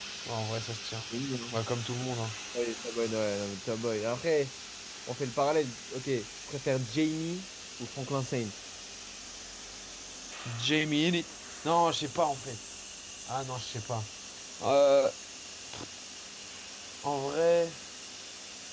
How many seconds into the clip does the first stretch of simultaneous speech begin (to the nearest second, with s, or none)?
none